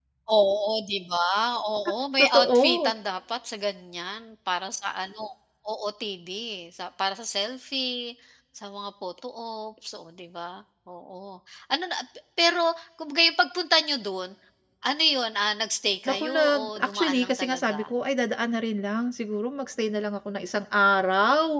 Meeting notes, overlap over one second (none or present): present